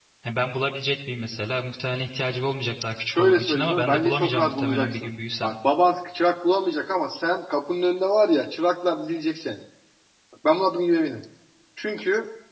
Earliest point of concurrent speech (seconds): 3.1 s

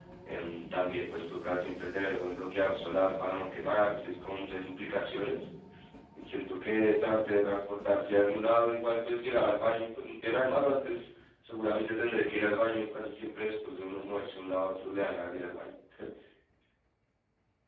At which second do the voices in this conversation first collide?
none

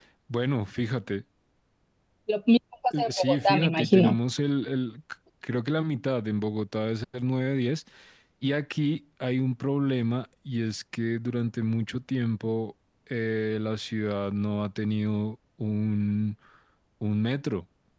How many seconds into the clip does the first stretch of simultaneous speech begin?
2.9 s

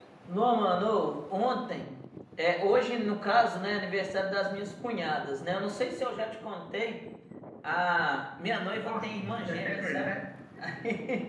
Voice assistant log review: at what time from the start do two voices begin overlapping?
8.7 s

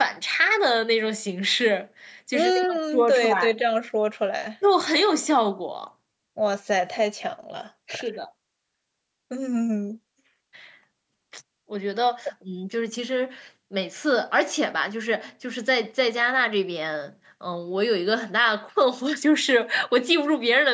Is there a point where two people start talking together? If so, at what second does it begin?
2.3 s

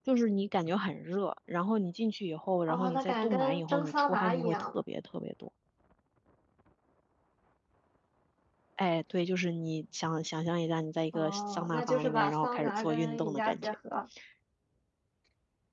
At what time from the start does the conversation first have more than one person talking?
2.7 s

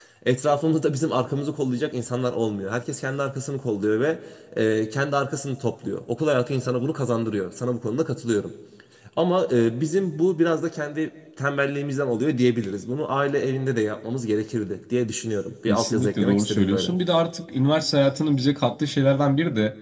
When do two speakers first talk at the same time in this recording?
15.7 s

